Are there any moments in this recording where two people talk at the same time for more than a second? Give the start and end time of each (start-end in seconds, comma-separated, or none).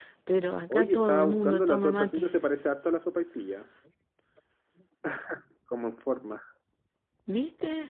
0.7-2.3